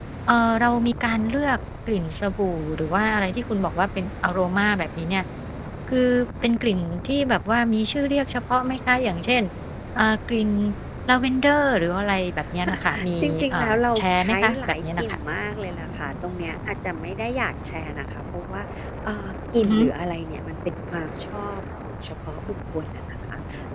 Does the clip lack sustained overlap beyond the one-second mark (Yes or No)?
No